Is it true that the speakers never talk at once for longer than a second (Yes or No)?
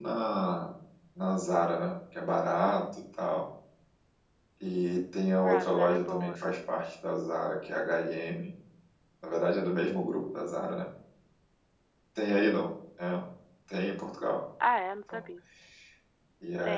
No